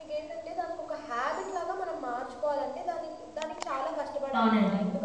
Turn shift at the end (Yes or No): No